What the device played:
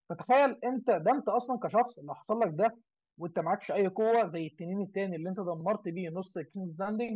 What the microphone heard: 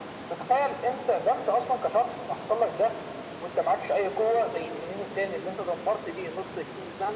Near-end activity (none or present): none